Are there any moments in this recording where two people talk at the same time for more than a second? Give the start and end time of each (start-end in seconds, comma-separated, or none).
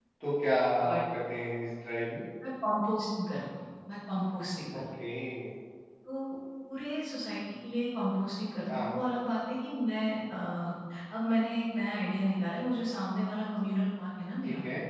none